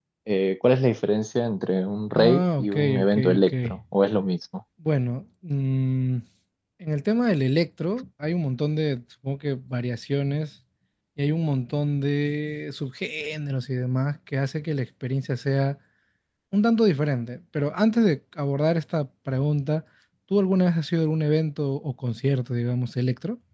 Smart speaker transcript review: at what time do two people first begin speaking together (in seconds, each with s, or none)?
2.2 s